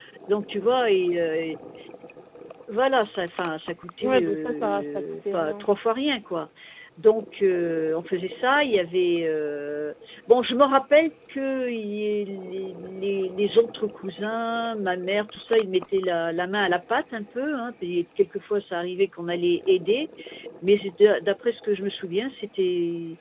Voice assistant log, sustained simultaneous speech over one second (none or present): present